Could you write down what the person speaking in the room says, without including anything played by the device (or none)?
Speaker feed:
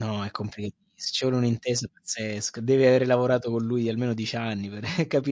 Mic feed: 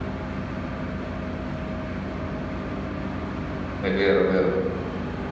è vero, vero.